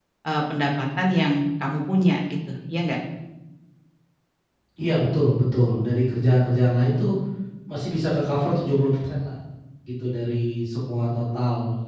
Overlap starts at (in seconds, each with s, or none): none